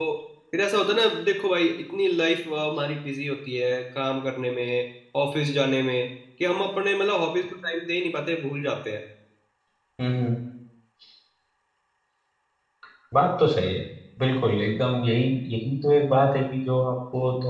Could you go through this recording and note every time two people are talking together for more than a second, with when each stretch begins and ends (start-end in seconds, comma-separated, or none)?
none